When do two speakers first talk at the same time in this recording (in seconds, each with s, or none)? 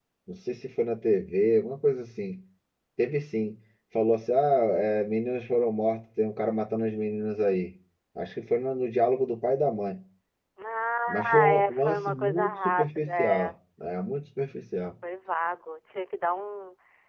11.1 s